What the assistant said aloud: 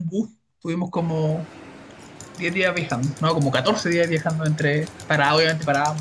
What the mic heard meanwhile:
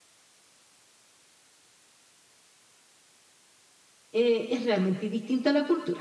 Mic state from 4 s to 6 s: user only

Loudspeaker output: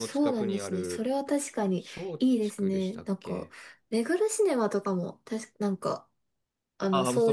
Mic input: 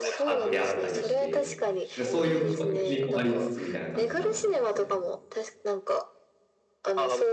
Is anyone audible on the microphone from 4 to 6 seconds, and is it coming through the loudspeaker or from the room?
both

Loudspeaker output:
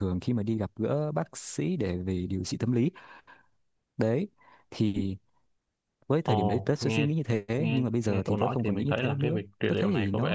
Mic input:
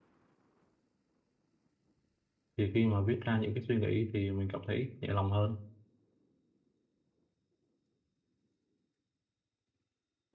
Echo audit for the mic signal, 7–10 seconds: neither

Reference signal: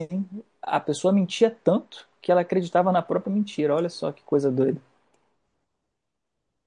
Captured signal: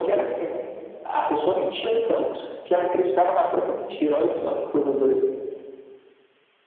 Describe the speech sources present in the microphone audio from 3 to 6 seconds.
echo only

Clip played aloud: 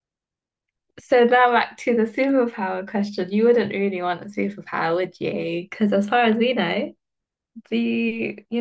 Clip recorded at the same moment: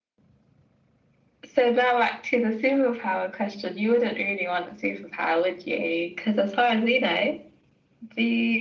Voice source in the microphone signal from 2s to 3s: echo only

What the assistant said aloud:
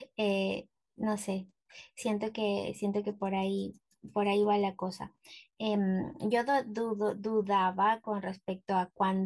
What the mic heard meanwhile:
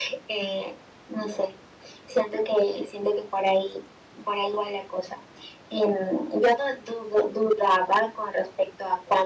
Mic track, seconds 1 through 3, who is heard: echo only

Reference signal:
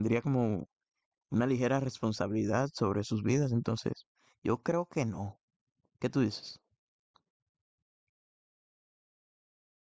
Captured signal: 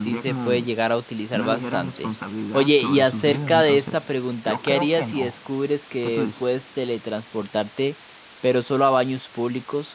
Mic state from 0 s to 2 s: both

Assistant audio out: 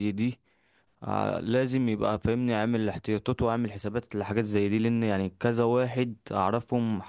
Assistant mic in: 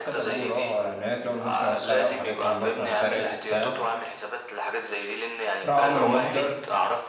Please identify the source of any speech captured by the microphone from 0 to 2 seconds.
both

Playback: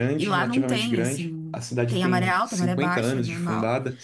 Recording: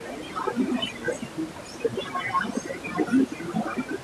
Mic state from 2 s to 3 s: echo only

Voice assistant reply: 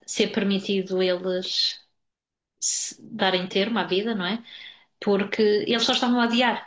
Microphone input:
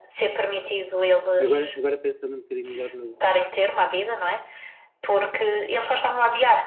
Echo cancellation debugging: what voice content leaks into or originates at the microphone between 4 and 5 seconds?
echo only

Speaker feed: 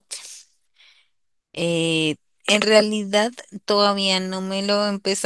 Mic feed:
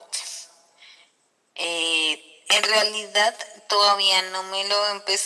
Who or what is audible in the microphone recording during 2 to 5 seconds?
echo only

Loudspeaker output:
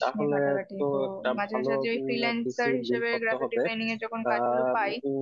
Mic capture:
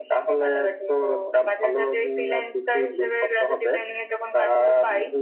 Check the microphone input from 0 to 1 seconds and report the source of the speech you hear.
echo only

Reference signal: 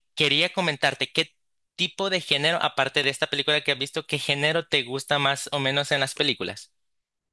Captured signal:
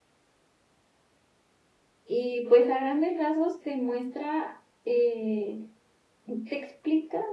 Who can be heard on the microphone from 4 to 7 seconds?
user only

